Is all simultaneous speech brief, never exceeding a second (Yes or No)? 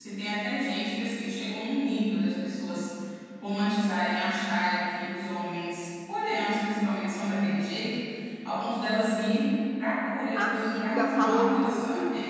No